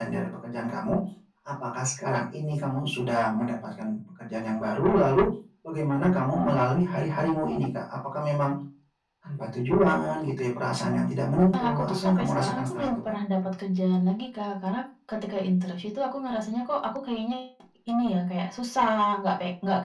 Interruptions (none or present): present